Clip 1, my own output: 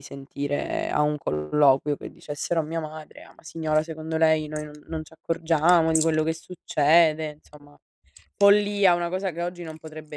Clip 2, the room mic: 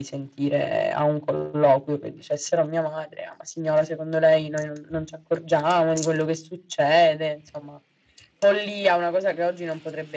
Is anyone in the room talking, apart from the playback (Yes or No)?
No